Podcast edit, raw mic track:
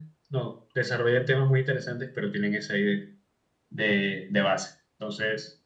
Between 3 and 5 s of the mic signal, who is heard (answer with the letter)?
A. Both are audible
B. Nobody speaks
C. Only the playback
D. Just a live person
C